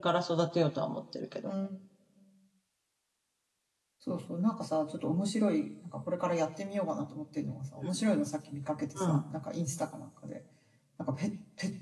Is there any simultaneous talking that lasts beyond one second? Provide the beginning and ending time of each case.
none

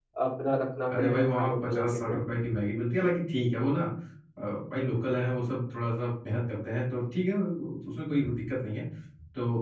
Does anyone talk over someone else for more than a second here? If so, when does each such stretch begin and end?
0.9-2.2

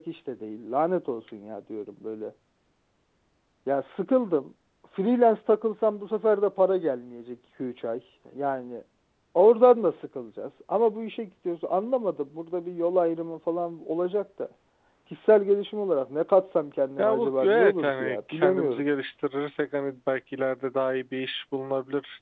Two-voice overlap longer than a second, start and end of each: 17.0-18.8

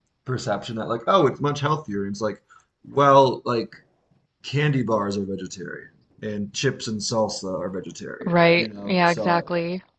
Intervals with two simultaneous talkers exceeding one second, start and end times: 8.2-9.5

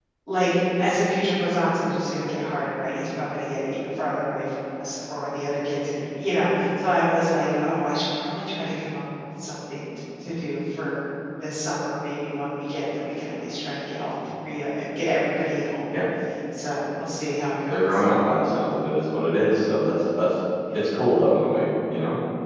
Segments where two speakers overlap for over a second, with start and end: none

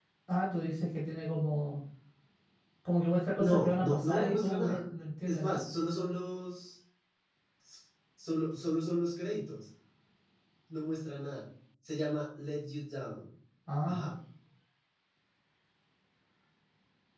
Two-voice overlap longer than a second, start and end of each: 3.4-4.8

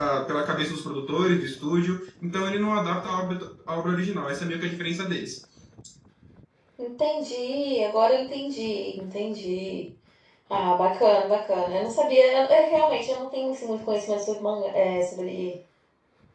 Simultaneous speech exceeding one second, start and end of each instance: none

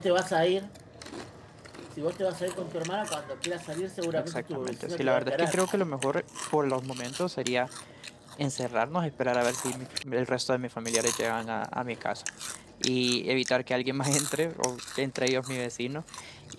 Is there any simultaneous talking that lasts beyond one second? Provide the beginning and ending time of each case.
4.1-5.6

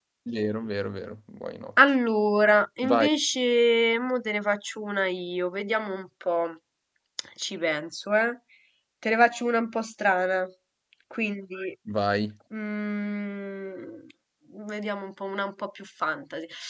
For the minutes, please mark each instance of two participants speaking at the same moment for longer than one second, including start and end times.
none

